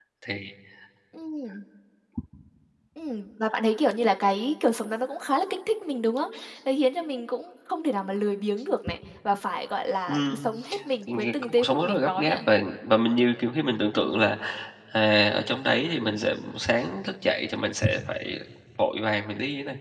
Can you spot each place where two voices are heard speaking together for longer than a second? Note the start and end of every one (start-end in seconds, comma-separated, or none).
11.0-12.4